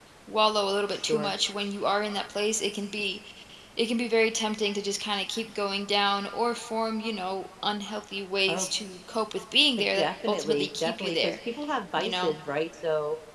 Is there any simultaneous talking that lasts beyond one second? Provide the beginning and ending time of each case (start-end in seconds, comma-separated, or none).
9.8-11.4